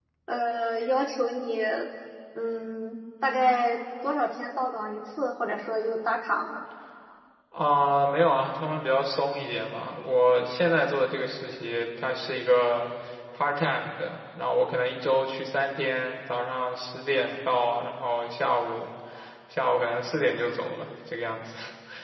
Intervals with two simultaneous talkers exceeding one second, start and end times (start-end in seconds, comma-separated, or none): none